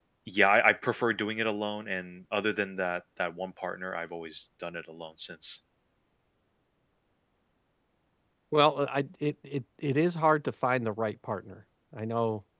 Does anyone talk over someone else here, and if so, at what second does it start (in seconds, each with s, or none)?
none